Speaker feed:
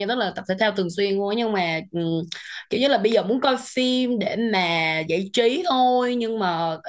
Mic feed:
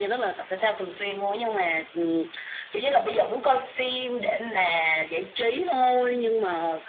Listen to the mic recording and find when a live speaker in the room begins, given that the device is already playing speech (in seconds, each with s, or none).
none